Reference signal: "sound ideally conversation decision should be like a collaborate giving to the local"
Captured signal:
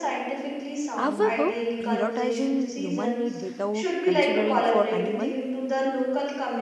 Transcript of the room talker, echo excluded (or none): However, prioritizing human need without considering for animal